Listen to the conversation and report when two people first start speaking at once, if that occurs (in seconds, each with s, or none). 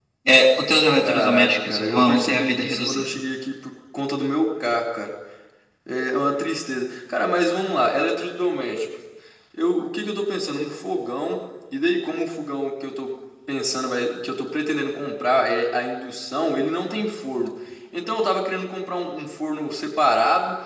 1.0 s